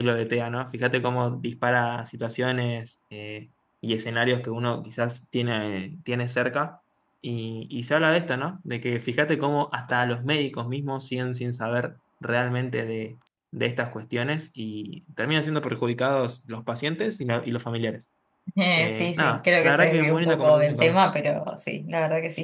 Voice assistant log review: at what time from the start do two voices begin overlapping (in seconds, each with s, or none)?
18.8 s